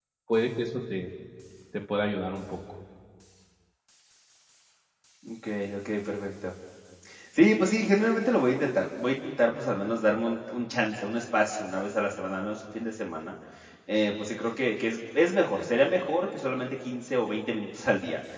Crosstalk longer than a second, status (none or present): none